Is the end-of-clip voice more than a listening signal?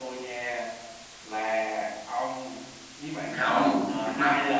Yes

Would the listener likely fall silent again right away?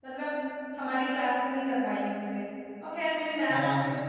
Yes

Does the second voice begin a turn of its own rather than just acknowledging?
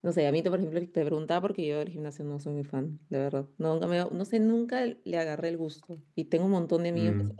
No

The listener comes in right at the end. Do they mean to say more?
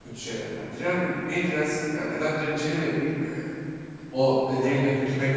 No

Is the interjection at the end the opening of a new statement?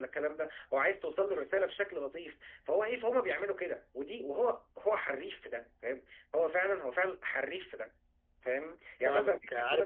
Yes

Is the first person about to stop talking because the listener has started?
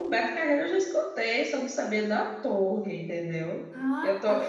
Yes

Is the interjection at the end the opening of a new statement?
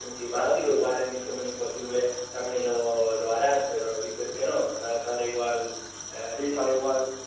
Yes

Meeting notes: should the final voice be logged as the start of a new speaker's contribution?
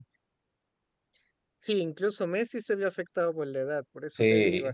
Yes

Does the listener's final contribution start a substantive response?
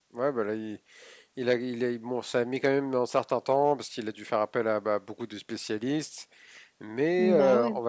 No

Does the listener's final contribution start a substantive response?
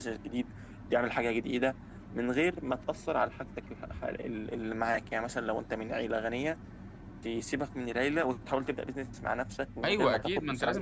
Yes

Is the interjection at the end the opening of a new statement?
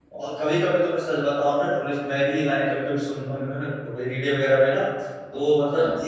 No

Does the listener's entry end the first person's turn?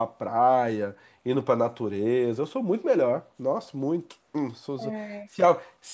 No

